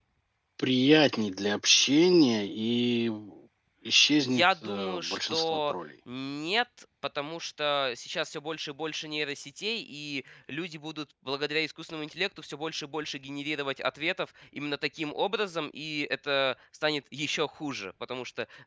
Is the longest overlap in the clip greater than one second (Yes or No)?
Yes